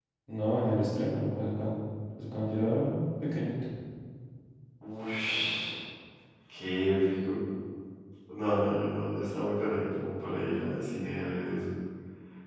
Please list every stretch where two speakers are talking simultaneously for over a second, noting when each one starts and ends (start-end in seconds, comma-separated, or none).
none